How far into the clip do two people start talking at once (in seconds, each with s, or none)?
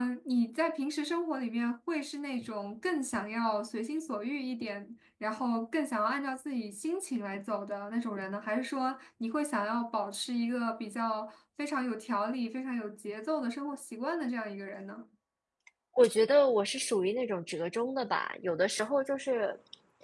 none